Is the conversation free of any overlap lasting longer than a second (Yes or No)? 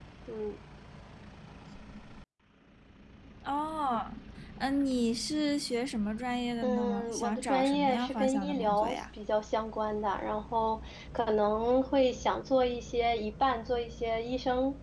No